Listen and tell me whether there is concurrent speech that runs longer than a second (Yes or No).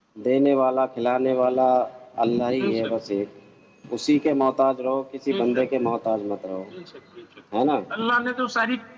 No